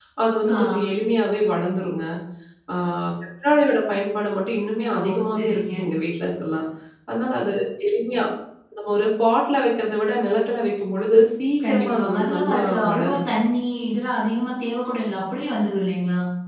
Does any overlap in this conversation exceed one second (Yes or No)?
Yes